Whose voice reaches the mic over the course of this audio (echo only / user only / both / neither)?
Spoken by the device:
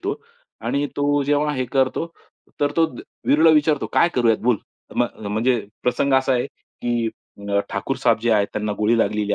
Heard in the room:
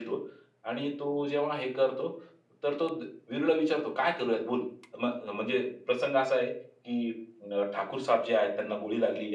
echo only